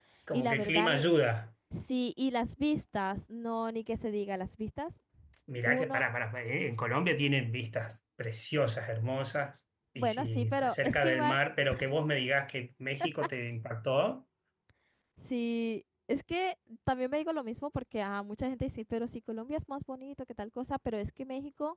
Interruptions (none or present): present